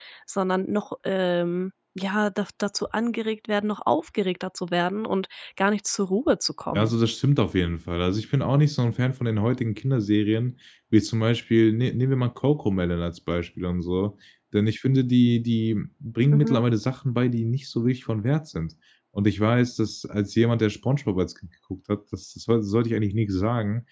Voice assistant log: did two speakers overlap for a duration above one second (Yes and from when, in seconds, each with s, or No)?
No